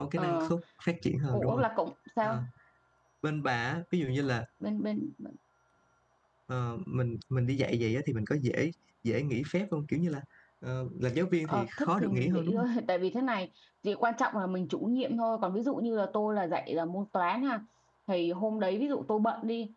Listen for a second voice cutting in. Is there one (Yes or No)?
Yes